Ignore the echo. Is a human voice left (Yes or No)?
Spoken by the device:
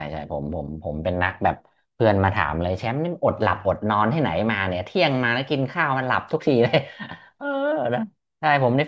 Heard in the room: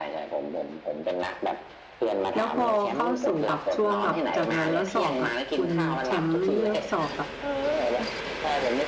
Yes